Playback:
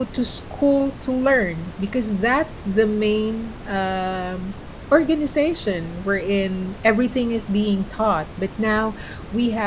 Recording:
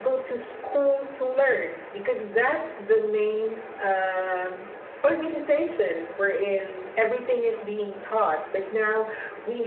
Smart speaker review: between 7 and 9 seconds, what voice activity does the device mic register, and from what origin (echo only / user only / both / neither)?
echo only